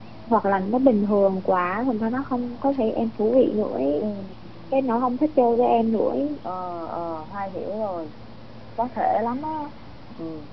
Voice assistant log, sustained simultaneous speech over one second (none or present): none